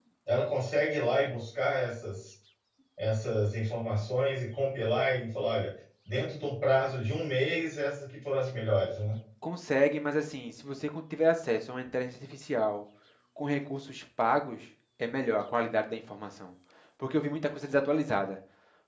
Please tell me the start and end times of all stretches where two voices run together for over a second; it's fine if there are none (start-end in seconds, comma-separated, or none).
none